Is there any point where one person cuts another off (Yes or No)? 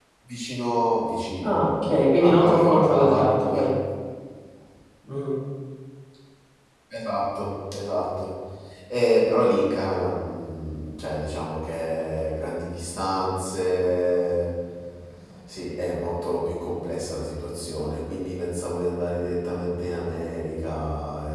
Yes